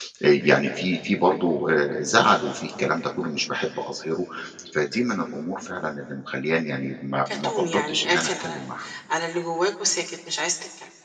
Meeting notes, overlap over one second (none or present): present